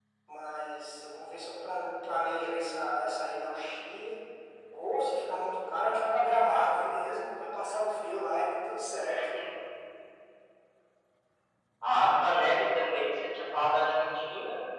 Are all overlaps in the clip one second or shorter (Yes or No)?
Yes